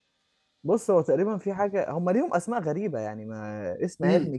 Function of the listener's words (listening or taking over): listening